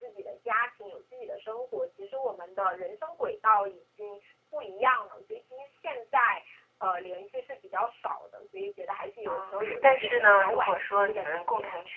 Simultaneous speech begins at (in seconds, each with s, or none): 9.2 s